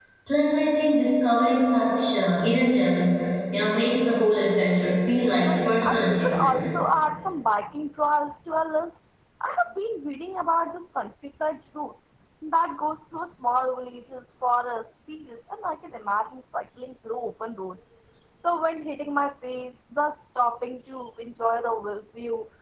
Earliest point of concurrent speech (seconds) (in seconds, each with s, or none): 5.3 s